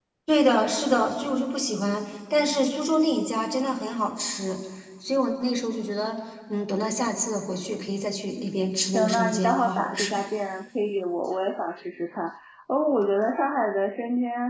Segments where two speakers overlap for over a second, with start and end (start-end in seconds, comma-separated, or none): 8.9-10.2